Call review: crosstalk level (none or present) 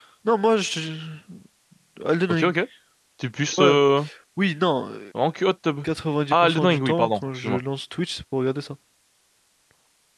present